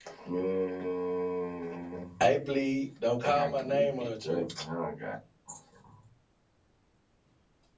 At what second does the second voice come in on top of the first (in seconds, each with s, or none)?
3.2 s